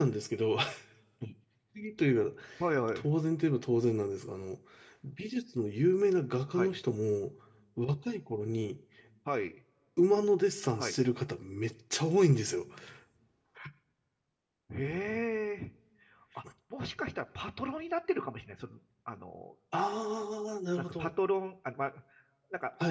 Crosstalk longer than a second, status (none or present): none